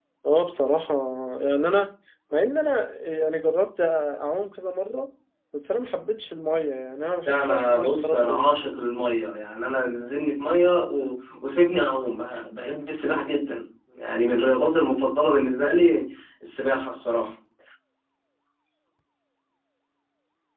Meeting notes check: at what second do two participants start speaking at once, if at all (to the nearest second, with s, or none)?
7 s